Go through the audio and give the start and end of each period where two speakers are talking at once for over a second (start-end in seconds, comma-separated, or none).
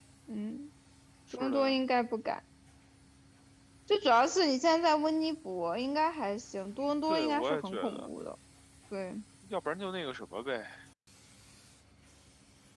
6.8-8.1